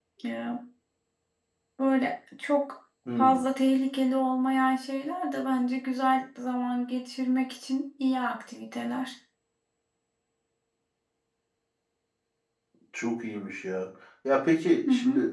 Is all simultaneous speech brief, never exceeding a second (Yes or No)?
Yes